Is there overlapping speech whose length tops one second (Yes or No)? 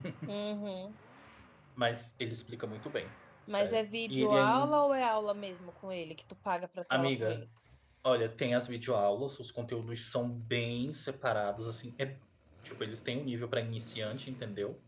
Yes